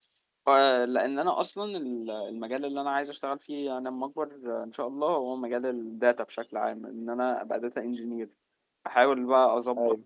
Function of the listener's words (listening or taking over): listening